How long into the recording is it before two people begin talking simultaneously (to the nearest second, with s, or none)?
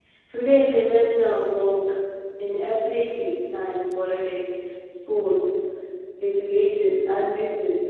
none